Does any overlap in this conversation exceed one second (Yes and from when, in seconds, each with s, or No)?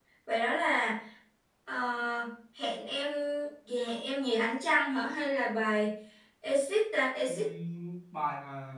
No